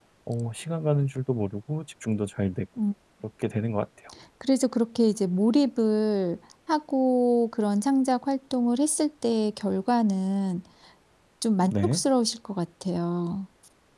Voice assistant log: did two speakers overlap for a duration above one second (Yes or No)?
No